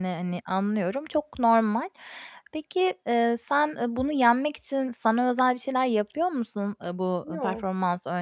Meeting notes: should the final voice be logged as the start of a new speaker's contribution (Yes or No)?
No